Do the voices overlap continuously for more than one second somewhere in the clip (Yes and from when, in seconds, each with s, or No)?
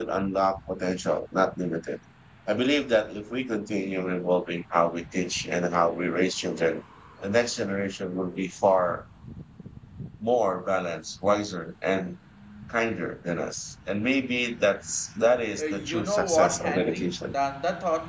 Yes, from 15.6 s